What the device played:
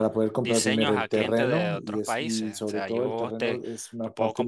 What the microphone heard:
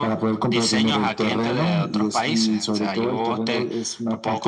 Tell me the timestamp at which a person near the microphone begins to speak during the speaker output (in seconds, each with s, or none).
none